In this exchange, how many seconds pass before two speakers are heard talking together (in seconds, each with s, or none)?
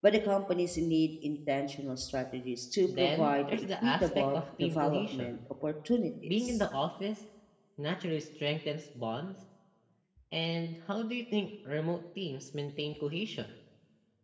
3.0 s